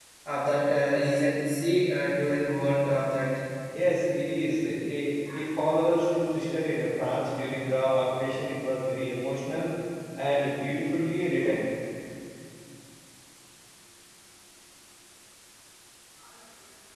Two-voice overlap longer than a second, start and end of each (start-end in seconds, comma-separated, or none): none